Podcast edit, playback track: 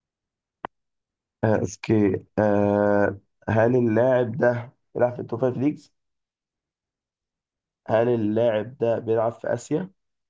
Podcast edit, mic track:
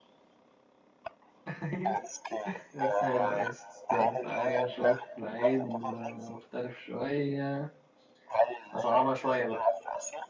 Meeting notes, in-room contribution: present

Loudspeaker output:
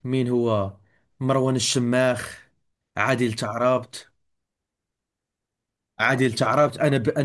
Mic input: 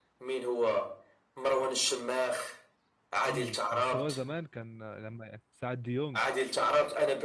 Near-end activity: present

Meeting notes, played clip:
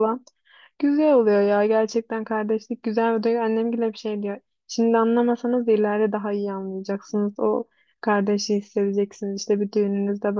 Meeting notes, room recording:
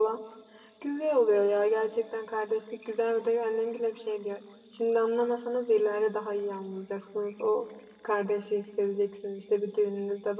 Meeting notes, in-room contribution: none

